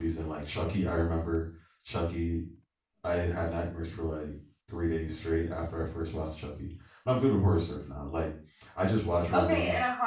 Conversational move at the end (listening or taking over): taking over